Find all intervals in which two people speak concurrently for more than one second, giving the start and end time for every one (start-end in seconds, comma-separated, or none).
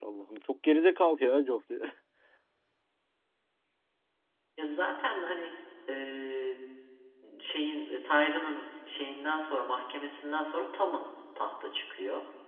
none